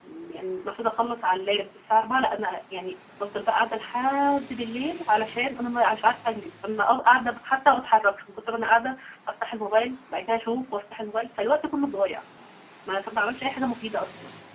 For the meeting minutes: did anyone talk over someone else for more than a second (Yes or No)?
No